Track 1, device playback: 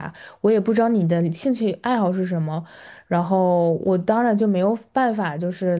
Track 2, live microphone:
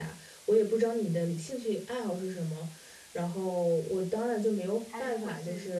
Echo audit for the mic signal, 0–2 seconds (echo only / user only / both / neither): echo only